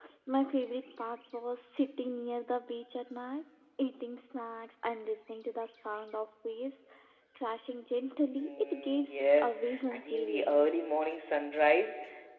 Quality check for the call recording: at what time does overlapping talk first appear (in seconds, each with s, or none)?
8.4 s